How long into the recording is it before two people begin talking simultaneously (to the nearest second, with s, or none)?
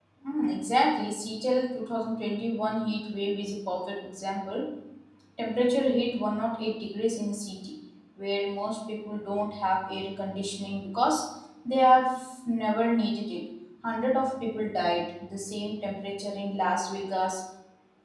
none